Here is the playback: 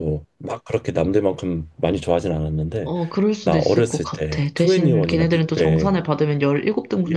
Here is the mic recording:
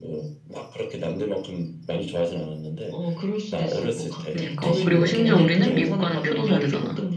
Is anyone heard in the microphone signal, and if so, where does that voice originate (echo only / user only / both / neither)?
both